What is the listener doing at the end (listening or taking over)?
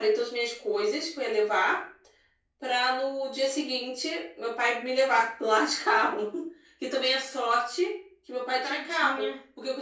listening